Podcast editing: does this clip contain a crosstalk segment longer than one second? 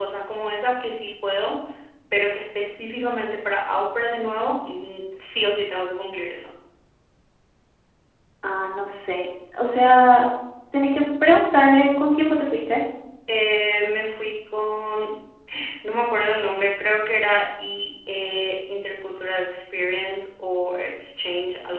No

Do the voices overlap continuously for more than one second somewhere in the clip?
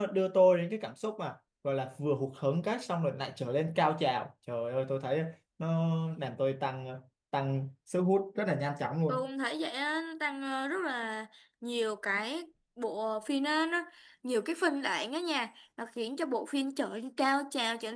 No

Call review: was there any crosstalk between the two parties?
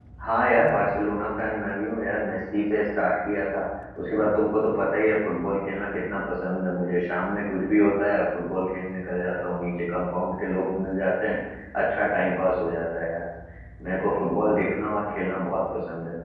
No

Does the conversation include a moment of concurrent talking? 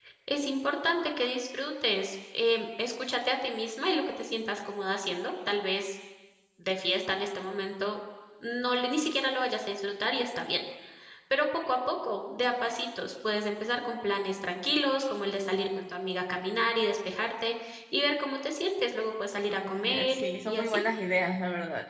Yes, from 19.5 s

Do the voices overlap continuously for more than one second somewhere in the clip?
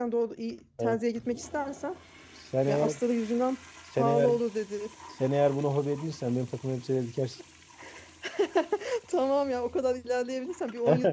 No

